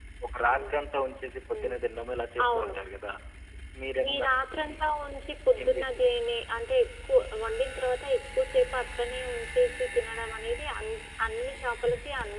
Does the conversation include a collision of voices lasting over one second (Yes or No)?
No